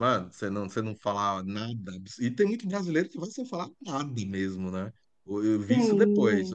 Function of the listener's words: listening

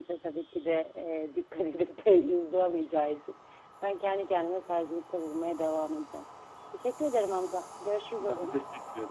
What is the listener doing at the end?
taking over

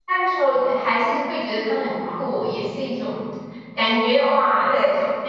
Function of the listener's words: listening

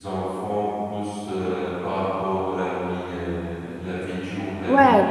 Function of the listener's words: taking over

